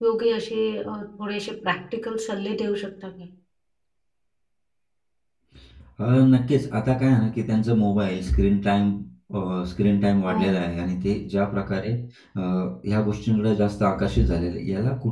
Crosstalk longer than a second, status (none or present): none